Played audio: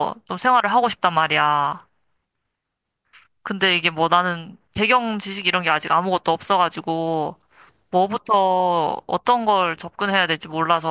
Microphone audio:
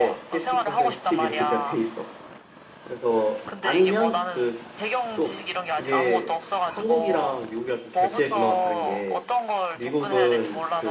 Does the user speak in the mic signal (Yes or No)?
Yes